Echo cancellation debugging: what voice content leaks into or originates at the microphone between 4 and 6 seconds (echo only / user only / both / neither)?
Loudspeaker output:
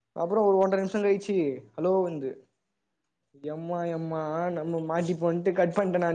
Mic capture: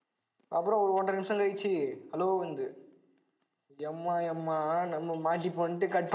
echo only